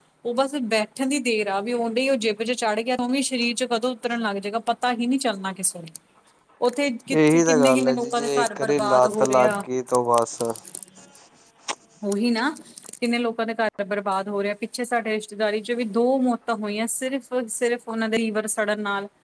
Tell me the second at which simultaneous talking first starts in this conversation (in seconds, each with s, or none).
7.1 s